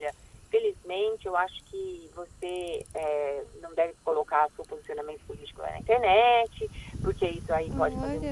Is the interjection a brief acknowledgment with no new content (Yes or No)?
Yes